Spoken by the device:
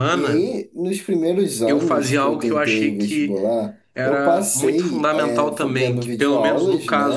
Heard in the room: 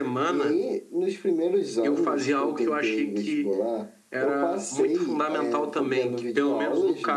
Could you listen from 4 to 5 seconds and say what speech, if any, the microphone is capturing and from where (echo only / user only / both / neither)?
echo only